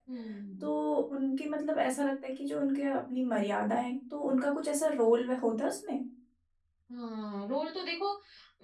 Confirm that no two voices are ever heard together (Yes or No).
Yes